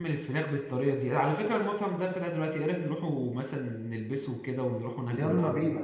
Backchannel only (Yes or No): No